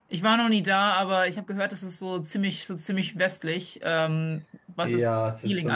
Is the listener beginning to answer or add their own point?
Yes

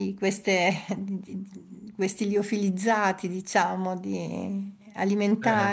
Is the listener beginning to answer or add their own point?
No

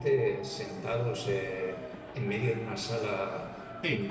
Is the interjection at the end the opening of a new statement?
No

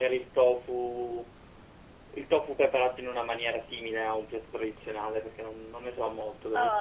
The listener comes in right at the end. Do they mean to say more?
Yes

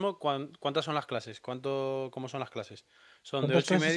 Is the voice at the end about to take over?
Yes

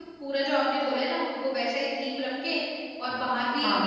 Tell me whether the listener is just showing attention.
Yes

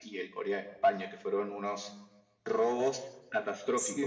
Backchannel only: No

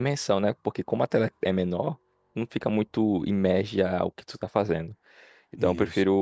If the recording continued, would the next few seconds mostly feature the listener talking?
No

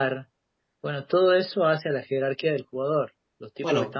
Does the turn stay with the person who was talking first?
Yes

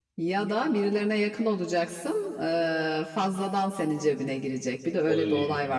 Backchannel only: No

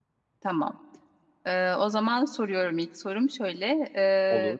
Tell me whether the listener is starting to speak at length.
No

